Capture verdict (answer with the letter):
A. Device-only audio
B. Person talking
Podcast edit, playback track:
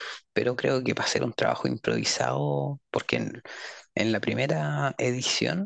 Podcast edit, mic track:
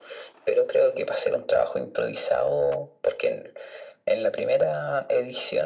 A